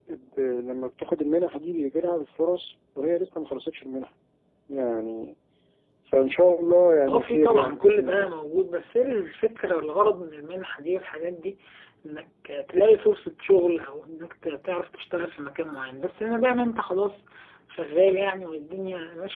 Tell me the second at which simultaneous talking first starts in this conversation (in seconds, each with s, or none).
7.1 s